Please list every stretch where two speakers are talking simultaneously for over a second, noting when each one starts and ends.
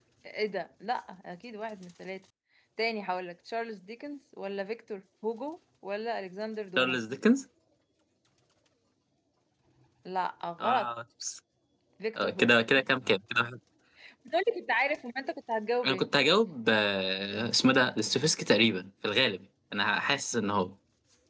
none

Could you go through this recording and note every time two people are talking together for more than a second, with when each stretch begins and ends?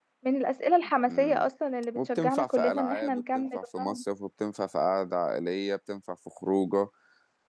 2.0-3.6

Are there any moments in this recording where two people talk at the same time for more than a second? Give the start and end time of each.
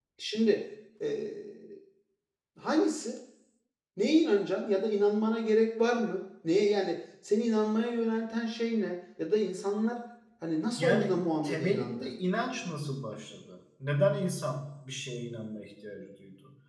10.8-12.1

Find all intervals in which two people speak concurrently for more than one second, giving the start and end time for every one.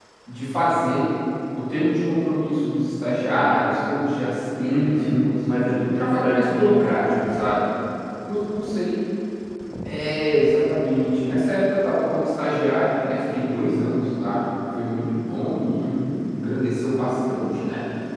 4.7-7.1

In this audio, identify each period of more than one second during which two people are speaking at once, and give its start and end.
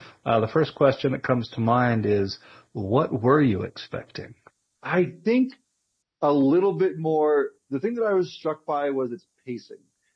none

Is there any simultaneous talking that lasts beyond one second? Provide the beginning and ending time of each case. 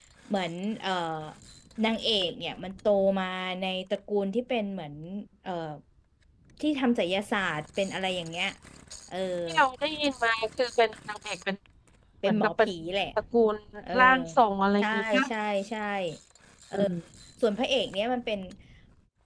none

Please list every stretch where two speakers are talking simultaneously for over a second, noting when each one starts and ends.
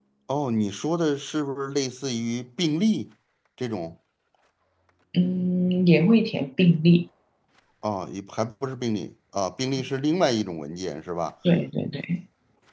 none

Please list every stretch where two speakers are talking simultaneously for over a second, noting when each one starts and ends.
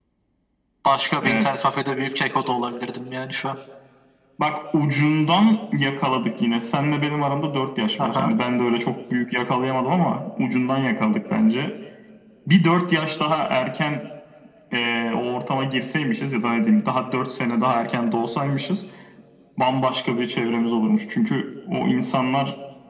none

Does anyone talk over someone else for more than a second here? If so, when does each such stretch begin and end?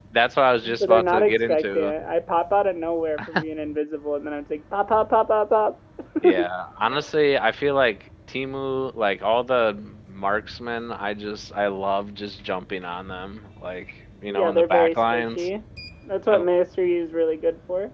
0.6-1.9, 14.3-15.5

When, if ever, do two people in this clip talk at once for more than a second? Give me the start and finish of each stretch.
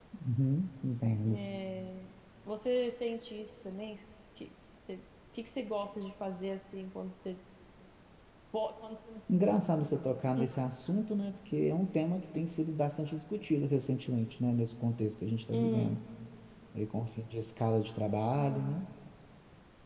none

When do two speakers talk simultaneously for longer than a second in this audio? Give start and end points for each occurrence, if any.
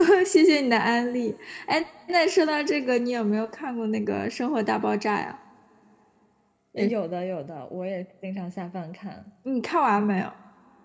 none

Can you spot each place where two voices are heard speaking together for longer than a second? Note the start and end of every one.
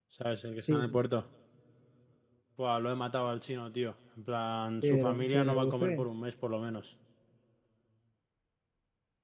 4.8-6.0

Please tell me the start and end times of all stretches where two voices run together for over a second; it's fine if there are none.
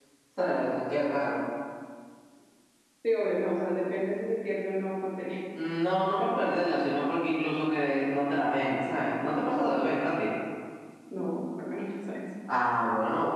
none

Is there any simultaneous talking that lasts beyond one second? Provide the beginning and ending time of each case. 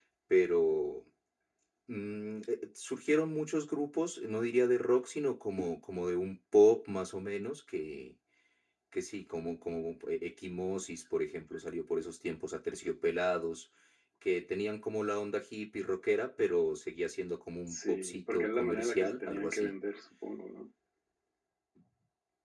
17.7-19.7

